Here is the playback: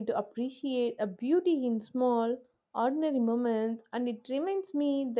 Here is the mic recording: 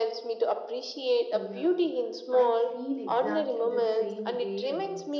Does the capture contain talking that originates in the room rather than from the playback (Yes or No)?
Yes